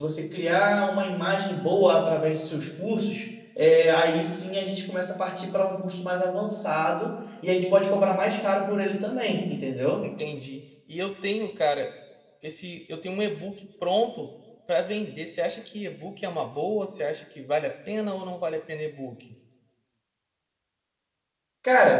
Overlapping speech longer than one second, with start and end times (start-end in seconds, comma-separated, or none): none